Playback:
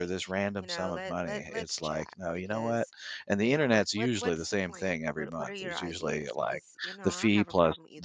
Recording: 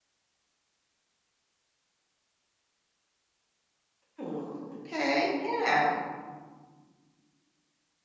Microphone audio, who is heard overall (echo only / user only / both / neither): user only